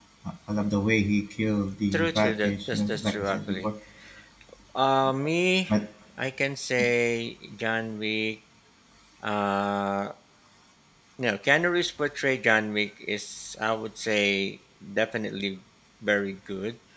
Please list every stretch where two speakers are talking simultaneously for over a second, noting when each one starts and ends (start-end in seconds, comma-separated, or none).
1.9-3.7